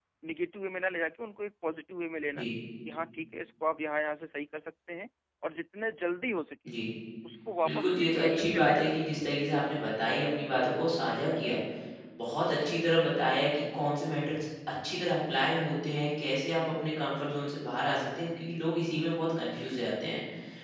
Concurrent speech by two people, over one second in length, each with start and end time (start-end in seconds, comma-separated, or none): 7.6-9.0